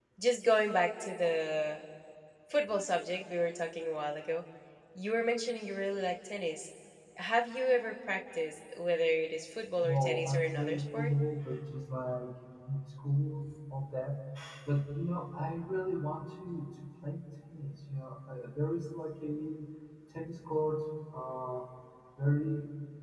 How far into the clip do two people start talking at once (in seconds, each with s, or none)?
9.8 s